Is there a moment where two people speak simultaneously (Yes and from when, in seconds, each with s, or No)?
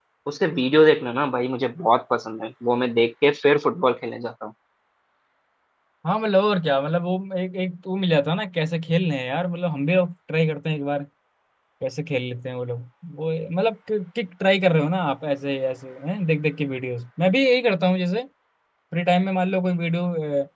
No